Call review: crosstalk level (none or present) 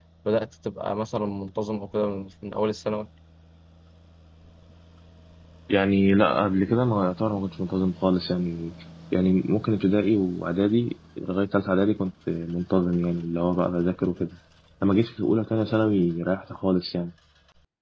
none